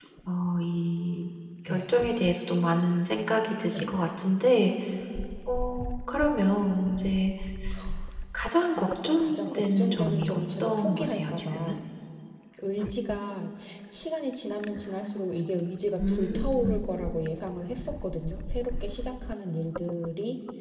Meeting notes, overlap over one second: present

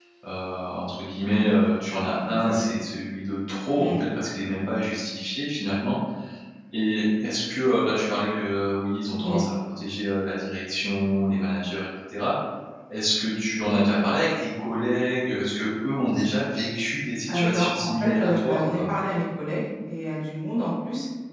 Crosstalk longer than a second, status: present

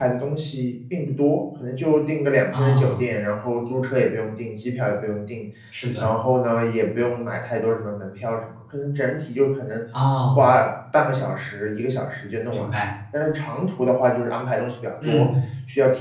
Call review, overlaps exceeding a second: none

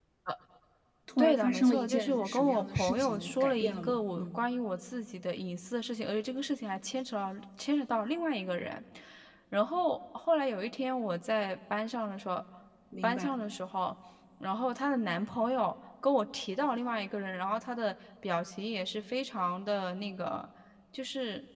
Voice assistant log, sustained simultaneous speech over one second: present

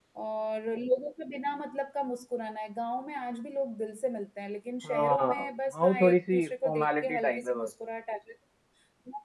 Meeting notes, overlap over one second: present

